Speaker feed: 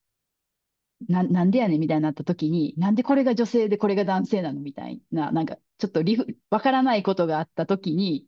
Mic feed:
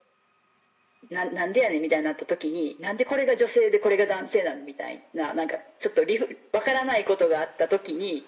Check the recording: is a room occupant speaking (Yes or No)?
No